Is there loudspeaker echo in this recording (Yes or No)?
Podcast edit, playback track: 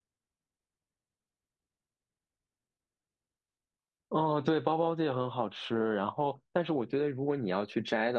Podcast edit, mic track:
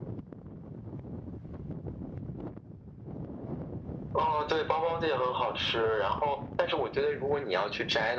Yes